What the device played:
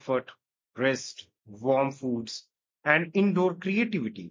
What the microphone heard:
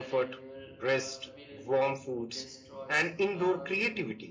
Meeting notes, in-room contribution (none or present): present